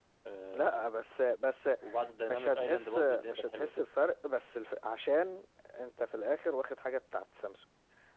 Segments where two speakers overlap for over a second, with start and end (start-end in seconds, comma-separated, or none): 2.3-3.7